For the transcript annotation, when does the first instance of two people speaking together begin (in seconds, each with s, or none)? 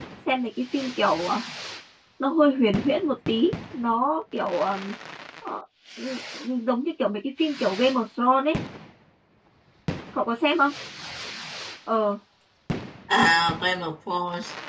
none